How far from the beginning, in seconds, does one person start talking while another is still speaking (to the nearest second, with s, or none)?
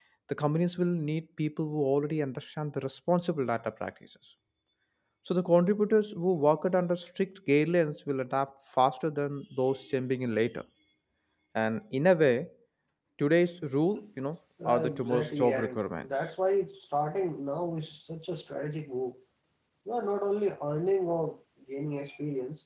15 s